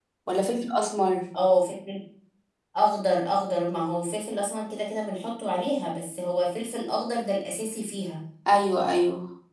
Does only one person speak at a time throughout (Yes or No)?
Yes